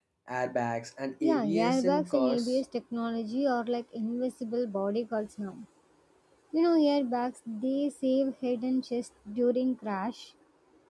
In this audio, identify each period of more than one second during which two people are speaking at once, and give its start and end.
1.2-2.6

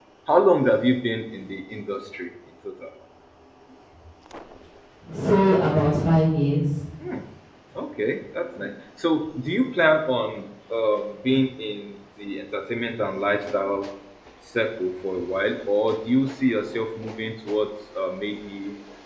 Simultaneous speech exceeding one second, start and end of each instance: none

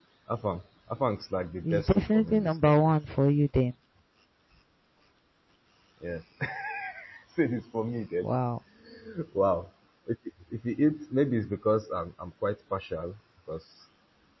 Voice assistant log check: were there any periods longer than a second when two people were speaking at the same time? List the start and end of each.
1.6-2.9

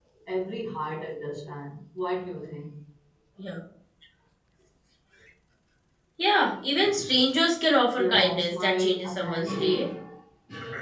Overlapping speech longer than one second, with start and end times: 8.0-9.9

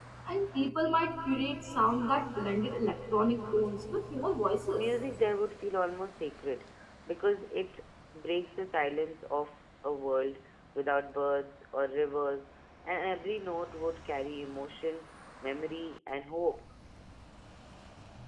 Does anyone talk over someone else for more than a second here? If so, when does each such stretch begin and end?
none

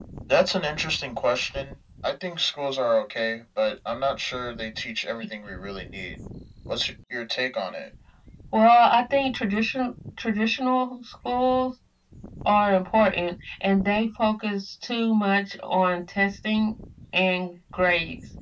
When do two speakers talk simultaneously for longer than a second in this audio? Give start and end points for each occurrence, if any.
none

